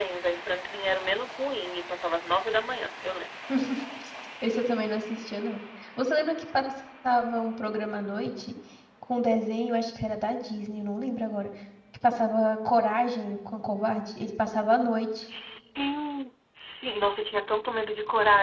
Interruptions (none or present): none